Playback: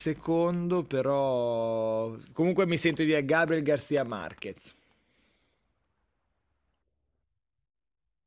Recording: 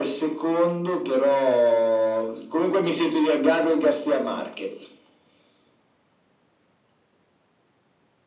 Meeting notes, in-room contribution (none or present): none